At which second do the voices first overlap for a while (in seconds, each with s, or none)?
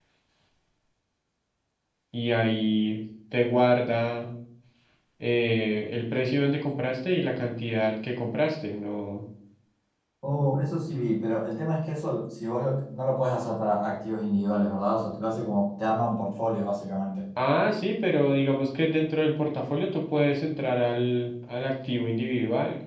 none